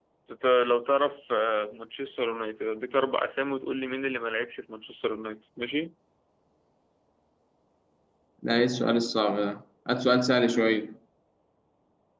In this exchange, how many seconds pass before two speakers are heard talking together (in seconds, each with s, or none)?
none